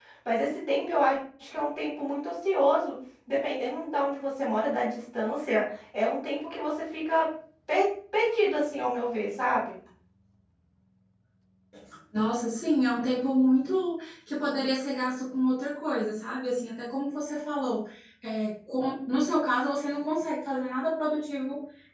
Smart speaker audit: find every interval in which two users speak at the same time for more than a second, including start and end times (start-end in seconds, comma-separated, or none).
none